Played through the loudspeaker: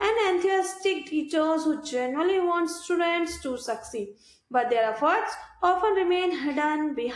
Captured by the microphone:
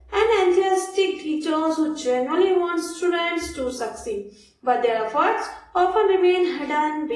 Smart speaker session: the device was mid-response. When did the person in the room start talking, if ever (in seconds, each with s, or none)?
none